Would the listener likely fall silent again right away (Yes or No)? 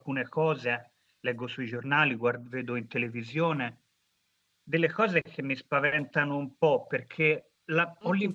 Yes